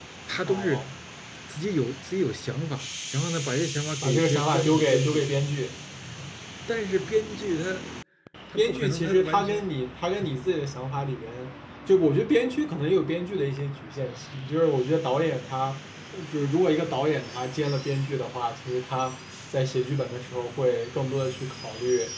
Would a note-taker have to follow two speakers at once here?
Yes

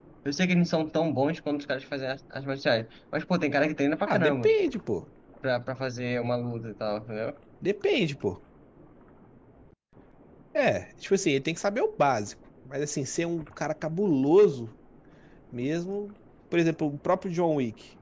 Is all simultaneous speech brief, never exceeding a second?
Yes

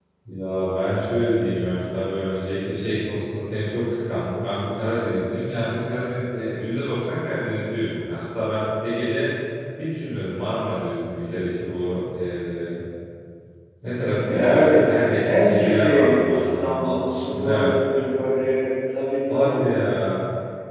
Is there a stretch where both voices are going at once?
Yes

